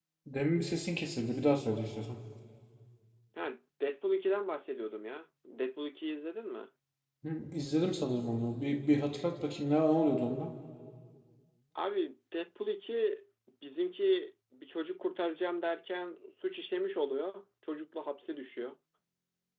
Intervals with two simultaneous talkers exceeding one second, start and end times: none

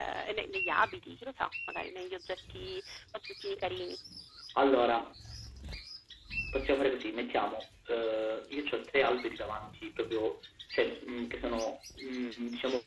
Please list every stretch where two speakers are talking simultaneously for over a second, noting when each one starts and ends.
none

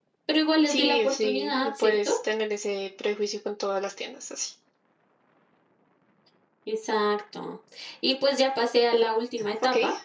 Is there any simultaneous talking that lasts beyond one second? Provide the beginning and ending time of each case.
0.7-2.1

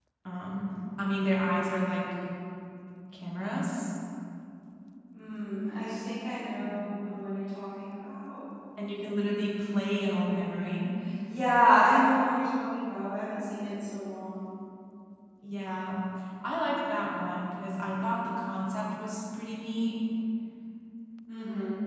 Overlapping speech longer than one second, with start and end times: none

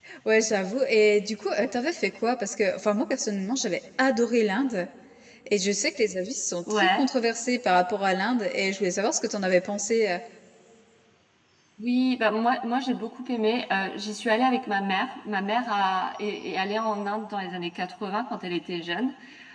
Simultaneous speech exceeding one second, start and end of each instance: none

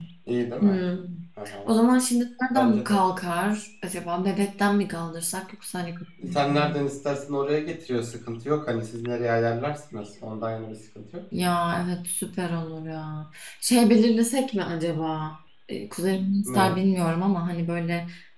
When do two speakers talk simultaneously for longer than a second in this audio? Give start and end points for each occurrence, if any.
none

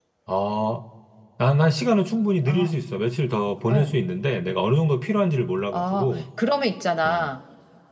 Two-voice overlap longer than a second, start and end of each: none

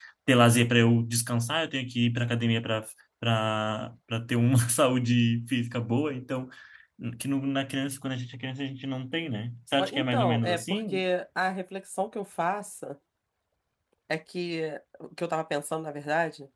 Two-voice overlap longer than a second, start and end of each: 9.8-11.0

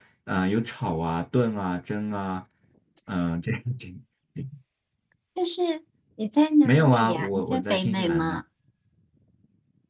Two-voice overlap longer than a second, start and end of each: 6.6-8.4

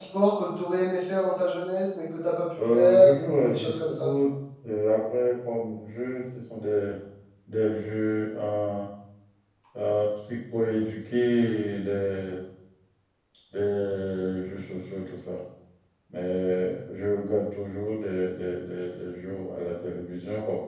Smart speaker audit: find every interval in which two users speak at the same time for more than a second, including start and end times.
2.7-4.1

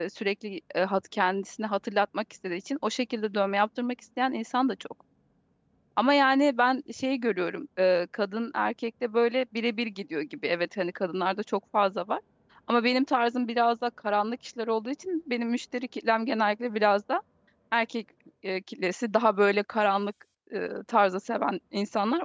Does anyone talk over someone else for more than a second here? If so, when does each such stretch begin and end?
none

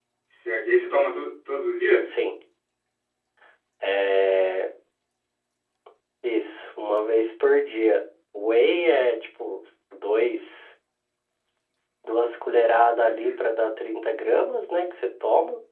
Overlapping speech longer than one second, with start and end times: none

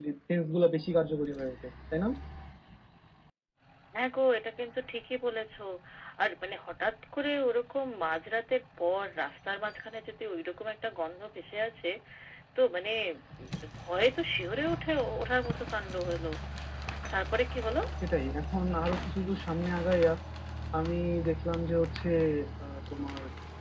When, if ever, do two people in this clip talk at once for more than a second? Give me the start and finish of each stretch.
none

